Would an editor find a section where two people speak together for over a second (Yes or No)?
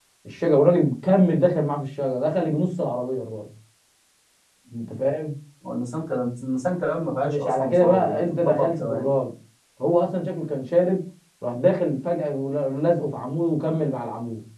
Yes